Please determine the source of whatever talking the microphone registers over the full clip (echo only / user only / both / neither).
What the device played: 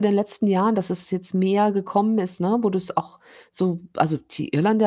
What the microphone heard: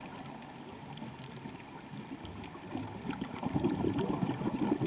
neither